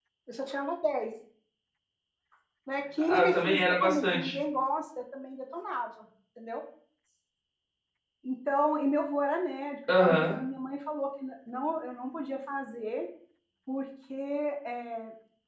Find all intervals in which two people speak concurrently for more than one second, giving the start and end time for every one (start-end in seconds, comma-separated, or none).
3.1-4.4